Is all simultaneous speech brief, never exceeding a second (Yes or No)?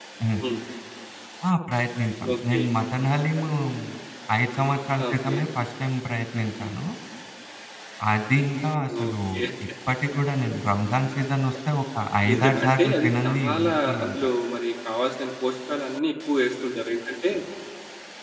No